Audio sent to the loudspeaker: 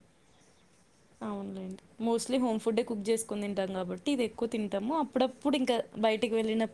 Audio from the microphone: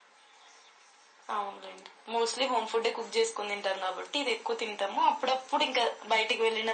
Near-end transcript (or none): none